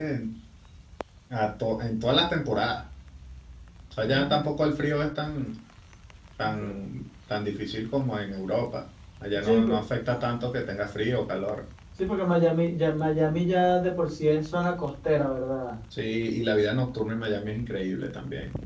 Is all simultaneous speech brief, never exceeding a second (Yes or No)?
Yes